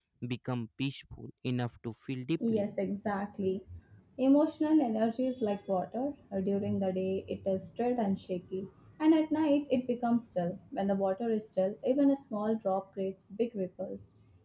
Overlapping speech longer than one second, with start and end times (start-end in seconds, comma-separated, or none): none